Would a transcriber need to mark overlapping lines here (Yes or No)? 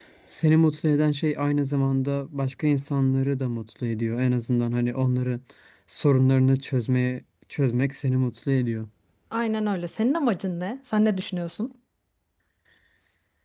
No